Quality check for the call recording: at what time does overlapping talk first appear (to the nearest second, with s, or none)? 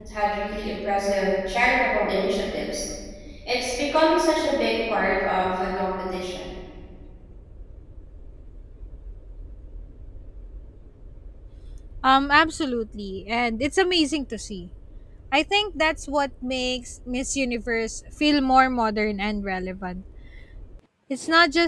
none